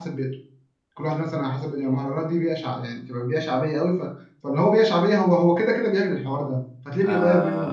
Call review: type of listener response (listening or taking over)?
taking over